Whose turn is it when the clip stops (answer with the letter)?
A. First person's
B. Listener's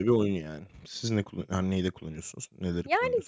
B